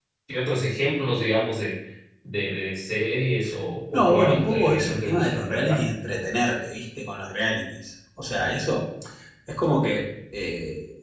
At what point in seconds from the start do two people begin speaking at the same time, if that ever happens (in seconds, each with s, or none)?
3.9 s